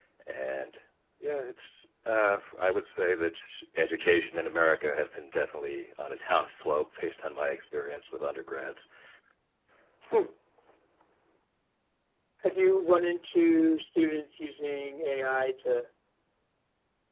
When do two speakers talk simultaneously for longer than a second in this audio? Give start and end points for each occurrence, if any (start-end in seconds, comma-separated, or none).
none